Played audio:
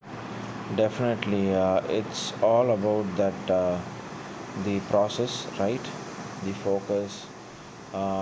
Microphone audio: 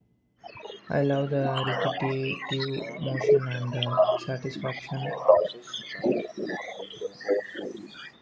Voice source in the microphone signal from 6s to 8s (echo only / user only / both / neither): echo only